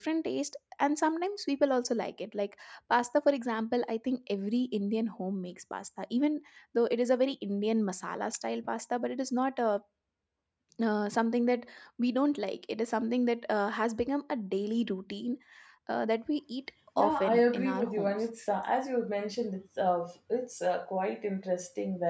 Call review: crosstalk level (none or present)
present